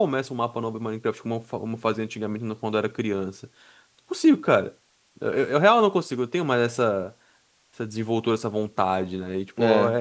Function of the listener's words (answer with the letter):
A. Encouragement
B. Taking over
A